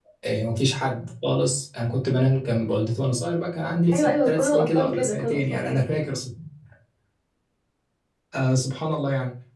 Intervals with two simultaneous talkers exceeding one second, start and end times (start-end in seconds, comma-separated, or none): 3.9-5.8